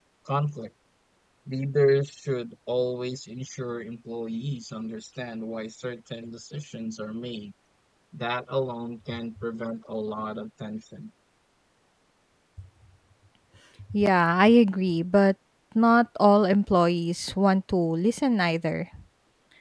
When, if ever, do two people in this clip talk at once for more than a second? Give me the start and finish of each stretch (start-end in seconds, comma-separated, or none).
none